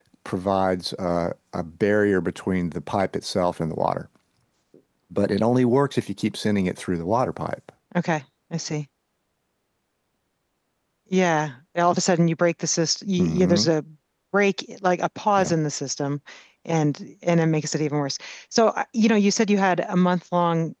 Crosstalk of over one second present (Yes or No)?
No